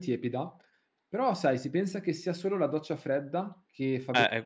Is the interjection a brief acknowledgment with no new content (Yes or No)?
No